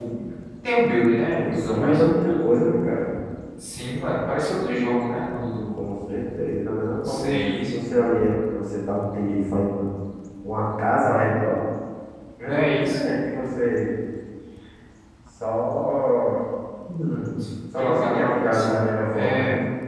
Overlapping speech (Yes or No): Yes